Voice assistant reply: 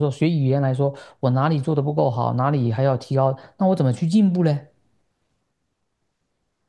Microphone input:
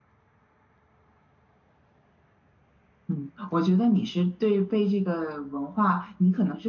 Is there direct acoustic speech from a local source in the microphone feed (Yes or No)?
Yes